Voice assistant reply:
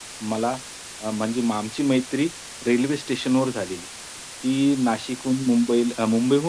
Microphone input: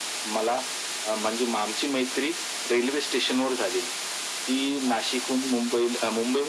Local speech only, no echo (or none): none